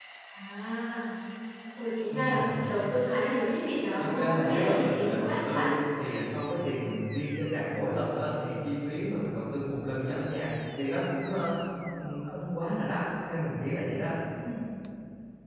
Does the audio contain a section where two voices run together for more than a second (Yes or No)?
Yes